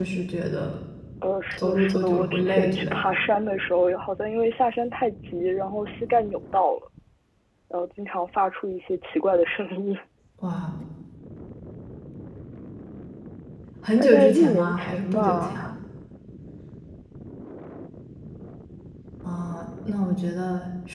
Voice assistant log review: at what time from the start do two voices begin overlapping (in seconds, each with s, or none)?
1.5 s